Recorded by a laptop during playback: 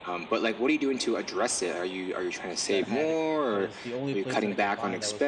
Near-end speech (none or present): present